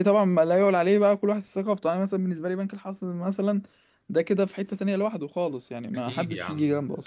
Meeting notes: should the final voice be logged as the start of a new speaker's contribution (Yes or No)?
Yes